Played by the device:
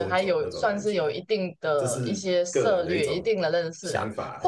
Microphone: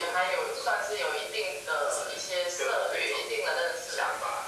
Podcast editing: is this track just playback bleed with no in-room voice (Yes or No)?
Yes